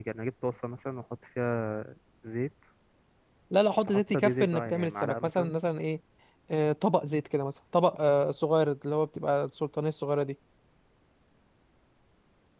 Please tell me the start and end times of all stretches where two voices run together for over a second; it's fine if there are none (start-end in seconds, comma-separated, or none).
3.9-5.5